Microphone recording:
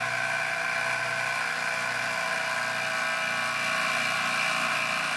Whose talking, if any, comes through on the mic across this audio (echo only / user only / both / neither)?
neither